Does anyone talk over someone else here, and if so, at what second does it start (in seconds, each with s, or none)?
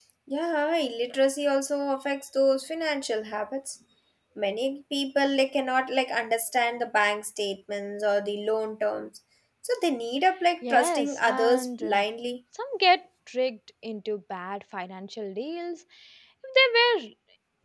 10.6 s